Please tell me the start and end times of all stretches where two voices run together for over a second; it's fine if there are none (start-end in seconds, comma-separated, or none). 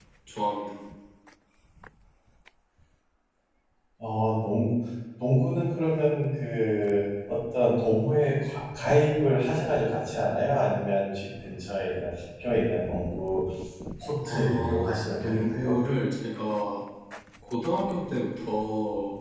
14.3-15.8